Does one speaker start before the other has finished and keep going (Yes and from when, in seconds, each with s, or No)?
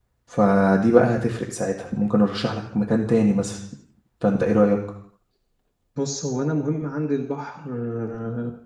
No